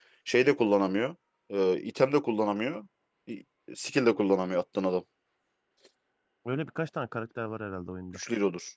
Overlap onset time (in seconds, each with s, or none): none